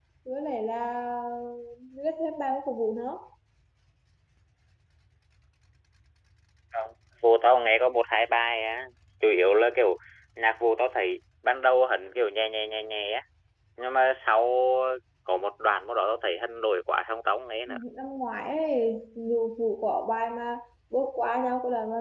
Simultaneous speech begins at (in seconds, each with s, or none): none